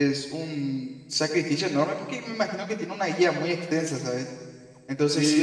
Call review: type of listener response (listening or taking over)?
taking over